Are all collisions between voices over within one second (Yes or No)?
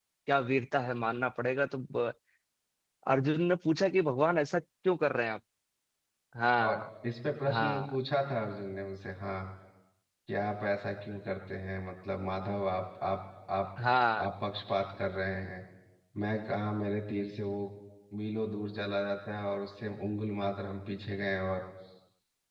Yes